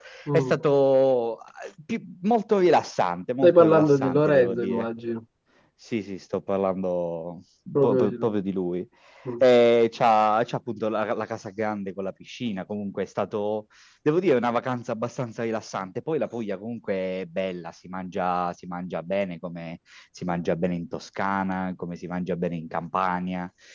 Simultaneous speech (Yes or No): Yes